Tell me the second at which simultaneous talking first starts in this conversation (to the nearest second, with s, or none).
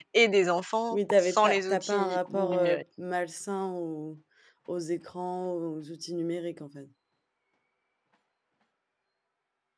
1 s